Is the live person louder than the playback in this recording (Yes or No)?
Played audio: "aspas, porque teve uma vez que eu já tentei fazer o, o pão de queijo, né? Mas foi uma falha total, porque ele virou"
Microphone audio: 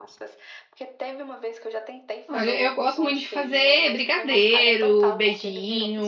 Yes